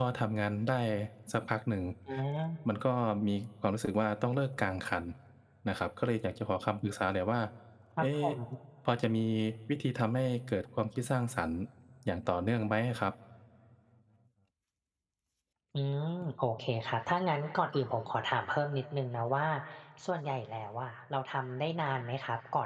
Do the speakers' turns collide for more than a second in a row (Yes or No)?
No